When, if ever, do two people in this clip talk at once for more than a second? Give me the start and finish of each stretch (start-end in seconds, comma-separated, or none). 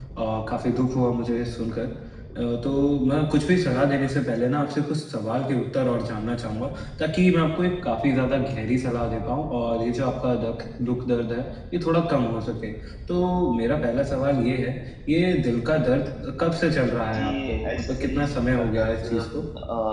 17.1-19.2